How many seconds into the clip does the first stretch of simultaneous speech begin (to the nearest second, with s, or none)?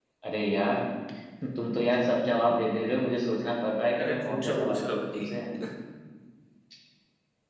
4 s